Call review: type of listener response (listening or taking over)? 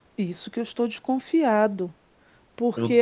taking over